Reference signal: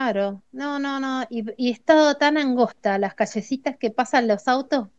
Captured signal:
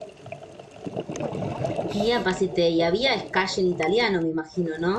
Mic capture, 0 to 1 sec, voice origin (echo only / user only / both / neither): neither